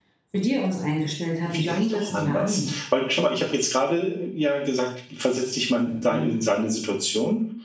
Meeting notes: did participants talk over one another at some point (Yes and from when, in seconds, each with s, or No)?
Yes, from 1.5 s